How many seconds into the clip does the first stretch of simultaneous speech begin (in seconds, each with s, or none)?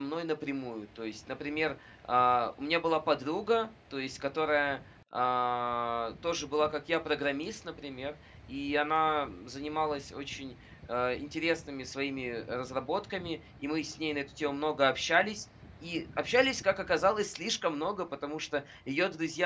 none